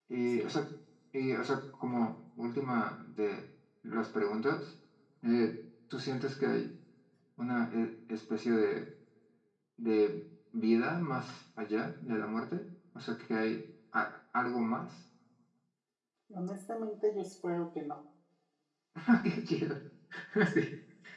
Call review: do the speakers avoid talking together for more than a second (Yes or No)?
Yes